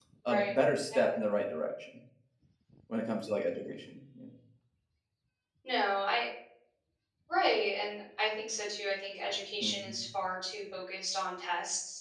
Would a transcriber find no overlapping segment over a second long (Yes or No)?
Yes